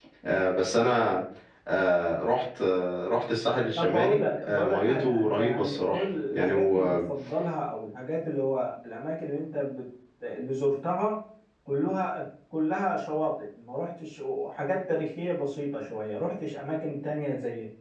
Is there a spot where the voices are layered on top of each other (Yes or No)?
Yes